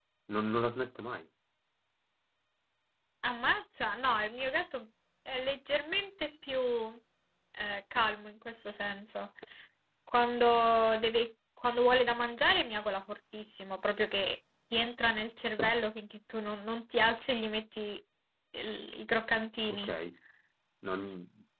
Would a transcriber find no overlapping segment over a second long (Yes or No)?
Yes